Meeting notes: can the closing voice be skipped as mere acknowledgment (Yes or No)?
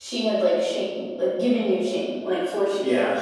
No